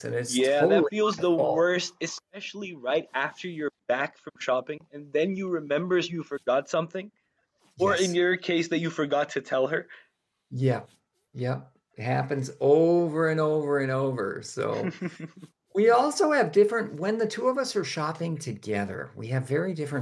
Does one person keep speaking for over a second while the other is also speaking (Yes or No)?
Yes